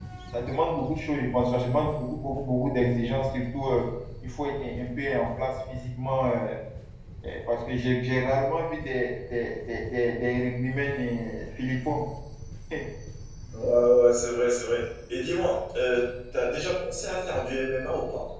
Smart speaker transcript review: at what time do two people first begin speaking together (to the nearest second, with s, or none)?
none